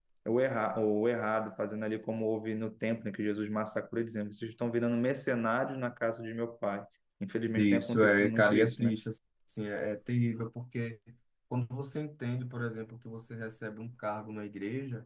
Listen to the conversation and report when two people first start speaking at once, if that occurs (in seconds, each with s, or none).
7.6 s